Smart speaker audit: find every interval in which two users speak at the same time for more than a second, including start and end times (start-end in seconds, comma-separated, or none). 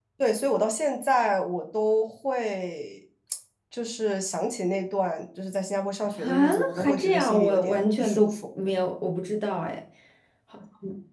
6.2-8.3